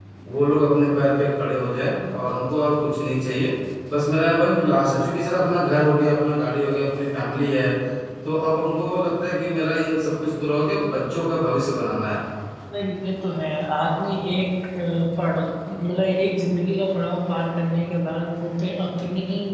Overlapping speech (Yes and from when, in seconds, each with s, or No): No